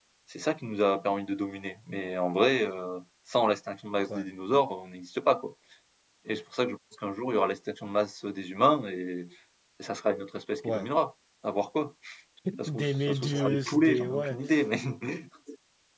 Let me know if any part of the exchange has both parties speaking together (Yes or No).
Yes